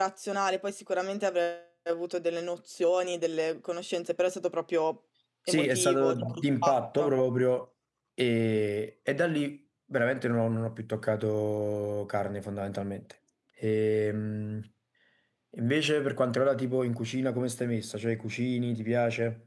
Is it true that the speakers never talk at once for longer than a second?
No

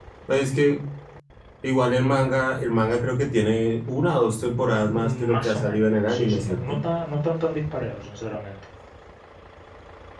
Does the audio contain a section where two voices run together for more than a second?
Yes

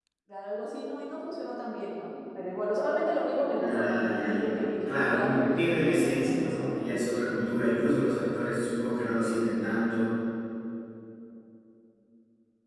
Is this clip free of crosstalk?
No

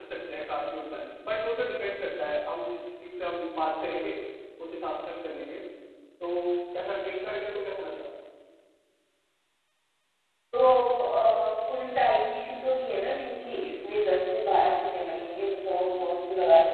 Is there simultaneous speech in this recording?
No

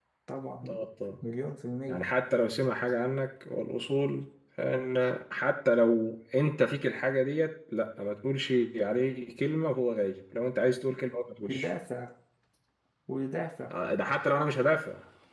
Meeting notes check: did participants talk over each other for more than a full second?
No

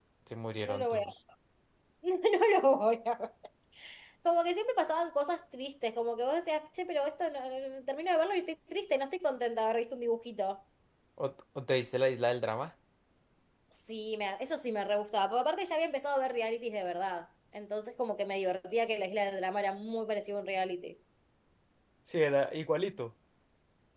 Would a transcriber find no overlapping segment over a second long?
Yes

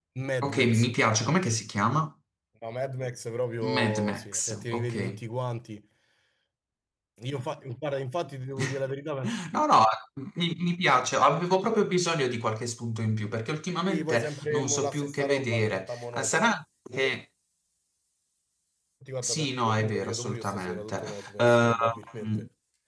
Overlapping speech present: Yes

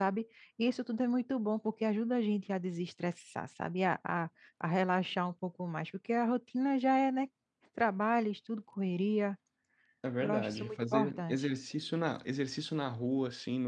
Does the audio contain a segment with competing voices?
Yes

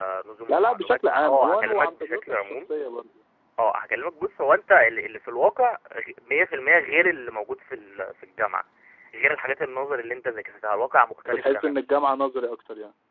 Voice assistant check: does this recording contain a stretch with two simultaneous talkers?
Yes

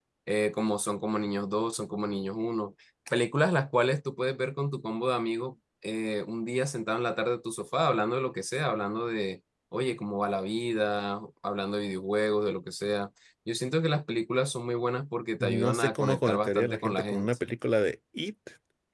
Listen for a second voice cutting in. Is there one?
Yes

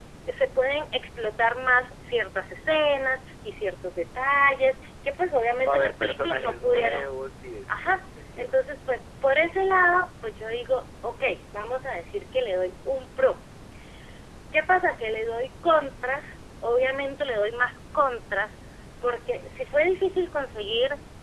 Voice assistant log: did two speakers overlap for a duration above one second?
Yes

